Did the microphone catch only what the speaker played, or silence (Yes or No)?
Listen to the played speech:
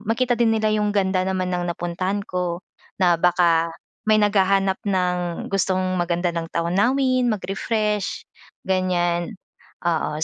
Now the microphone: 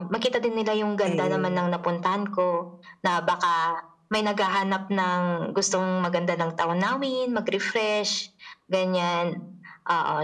No